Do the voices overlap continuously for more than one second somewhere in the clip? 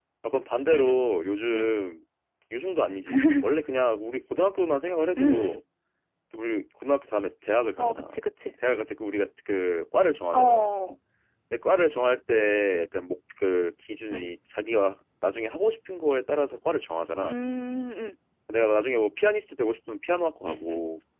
No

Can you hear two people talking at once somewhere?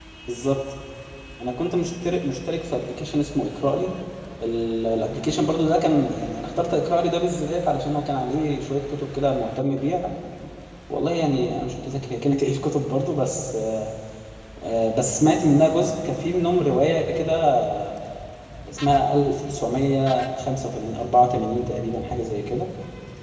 No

